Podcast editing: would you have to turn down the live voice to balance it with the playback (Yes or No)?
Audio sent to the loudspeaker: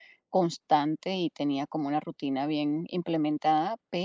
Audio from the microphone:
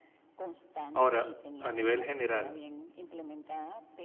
Yes